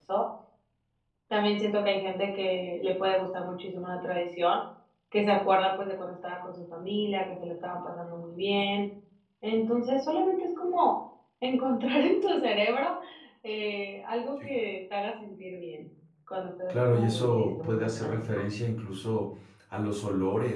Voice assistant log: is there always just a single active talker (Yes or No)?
No